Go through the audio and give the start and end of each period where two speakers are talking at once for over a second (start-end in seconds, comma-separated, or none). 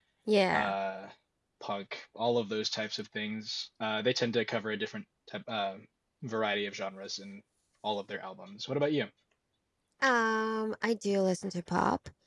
none